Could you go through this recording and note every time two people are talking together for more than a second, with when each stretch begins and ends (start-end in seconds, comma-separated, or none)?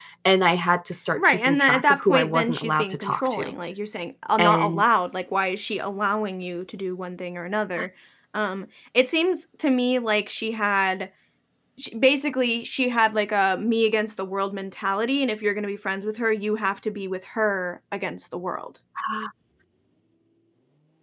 1.2-3.5